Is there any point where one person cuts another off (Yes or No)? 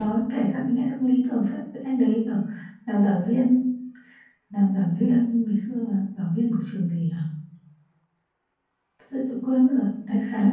No